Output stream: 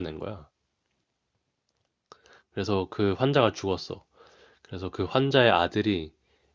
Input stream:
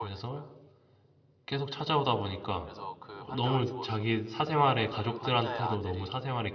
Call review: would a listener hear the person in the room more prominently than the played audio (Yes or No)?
Yes